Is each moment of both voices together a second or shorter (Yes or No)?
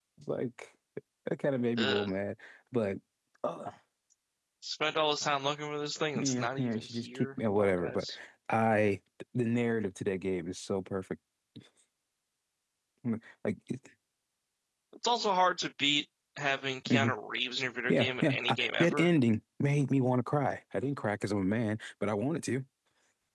No